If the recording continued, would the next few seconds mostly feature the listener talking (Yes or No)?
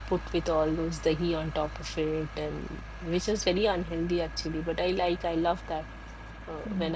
No